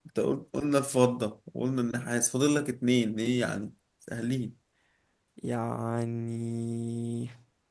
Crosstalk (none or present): none